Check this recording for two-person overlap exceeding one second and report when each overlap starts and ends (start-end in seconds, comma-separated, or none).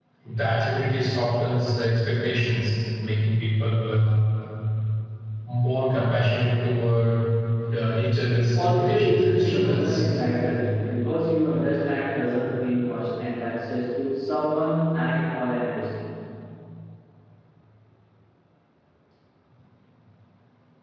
8.3-10.1